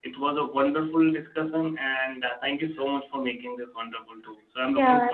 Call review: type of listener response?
taking over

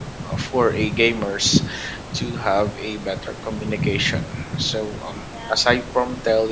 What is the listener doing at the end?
listening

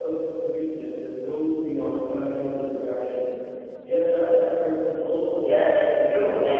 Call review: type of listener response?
taking over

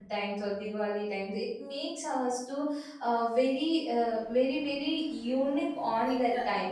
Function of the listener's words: taking over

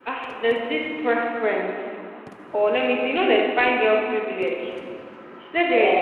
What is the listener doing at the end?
listening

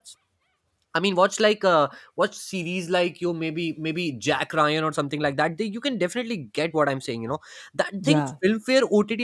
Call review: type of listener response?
listening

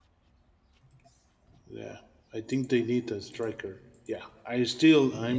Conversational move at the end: taking over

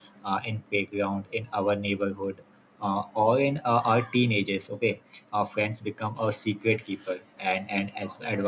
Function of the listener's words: listening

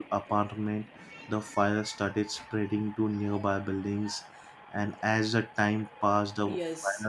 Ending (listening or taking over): taking over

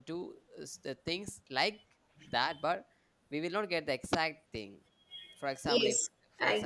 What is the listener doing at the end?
taking over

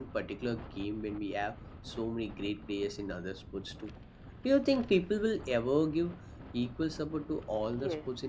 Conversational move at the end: taking over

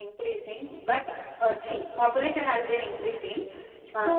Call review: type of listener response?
listening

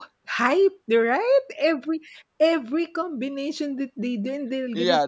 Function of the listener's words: taking over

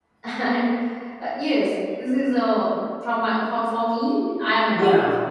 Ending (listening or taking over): taking over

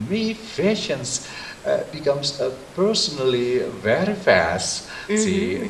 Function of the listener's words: taking over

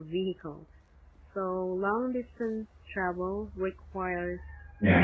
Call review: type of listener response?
listening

